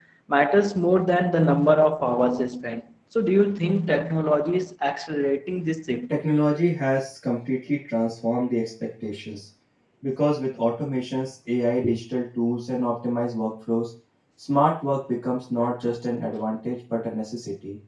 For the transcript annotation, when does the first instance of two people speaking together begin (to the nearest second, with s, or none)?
none